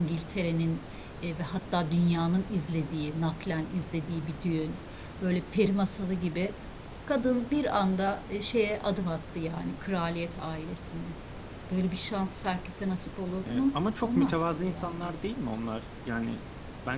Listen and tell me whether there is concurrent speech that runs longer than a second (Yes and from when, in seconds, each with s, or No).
Yes, from 13.5 s